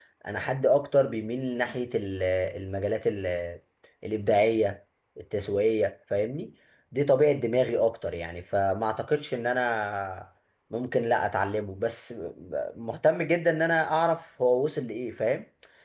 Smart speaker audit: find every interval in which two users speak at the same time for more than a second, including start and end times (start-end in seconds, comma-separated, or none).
none